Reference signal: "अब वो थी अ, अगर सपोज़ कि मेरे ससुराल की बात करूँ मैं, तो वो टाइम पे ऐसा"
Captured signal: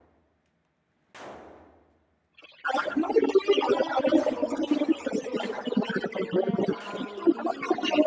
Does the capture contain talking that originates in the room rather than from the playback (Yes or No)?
Yes